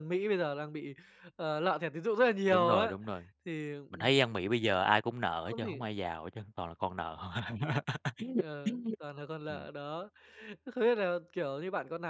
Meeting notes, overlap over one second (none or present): none